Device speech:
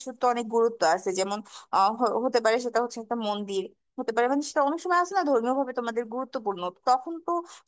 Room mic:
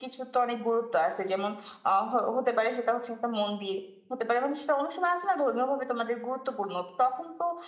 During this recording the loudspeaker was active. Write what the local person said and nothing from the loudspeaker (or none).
none